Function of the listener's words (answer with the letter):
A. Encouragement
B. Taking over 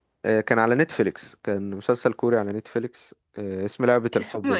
A